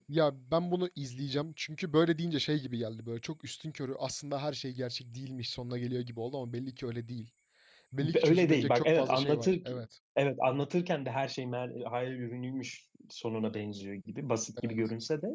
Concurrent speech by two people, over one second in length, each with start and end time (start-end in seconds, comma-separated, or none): 8.0-9.6